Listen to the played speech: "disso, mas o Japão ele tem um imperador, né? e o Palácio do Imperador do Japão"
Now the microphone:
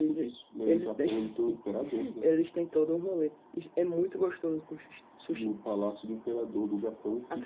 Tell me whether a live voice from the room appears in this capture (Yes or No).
Yes